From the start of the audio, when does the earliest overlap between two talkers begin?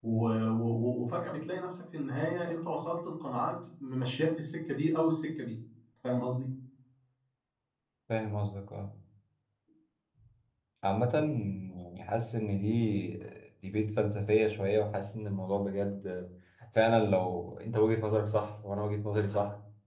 none

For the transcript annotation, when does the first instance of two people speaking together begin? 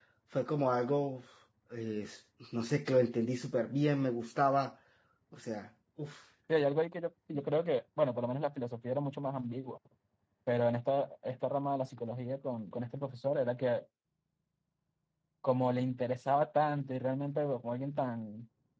none

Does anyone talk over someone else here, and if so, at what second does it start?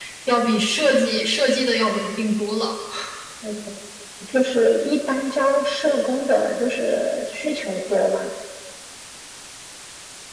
none

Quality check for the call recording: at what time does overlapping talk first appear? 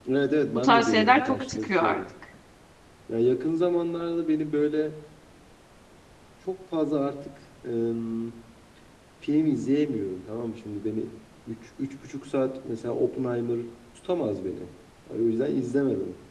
1 s

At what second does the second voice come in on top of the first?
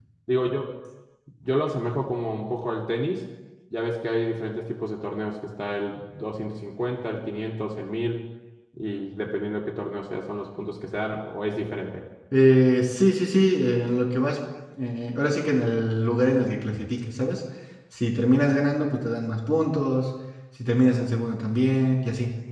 none

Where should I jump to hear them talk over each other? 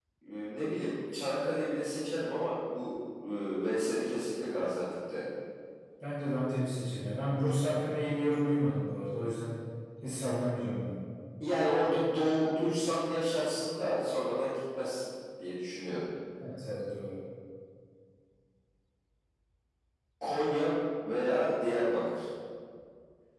none

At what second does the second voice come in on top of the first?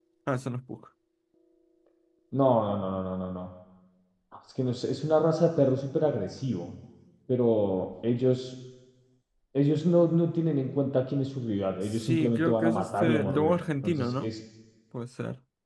12 s

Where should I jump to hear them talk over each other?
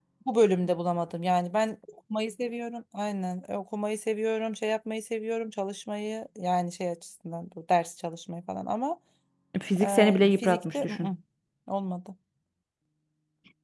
10 s

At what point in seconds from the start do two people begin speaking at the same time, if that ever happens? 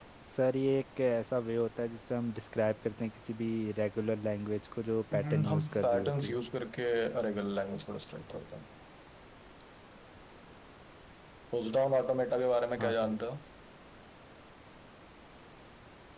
5 s

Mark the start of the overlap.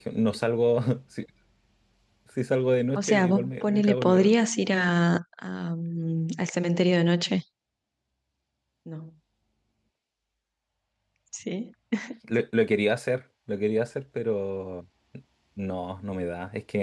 3 s

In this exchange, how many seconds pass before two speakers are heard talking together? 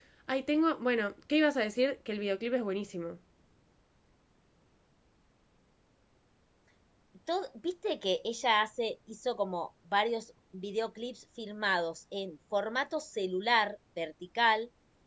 none

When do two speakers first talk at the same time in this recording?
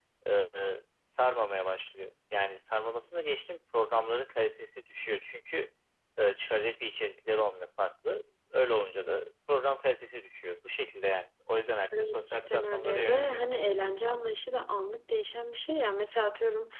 12 s

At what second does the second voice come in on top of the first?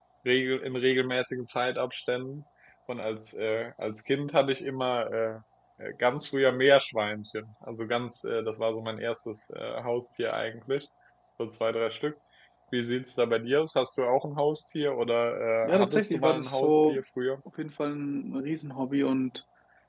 16 s

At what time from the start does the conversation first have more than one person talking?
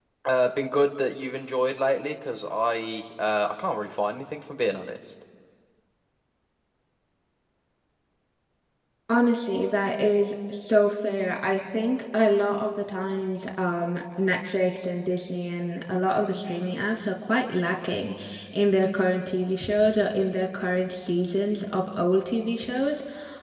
none

